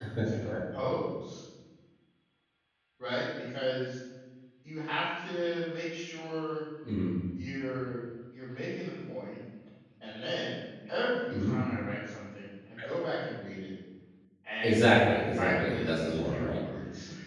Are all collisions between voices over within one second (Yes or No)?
No